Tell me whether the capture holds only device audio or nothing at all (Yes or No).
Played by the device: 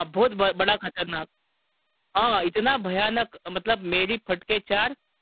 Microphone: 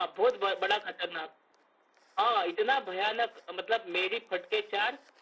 Yes